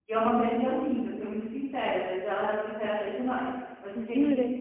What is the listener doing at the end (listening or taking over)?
listening